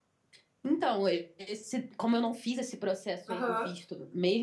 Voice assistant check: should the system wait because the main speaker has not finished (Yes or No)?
Yes